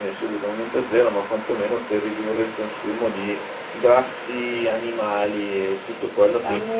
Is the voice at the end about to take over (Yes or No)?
No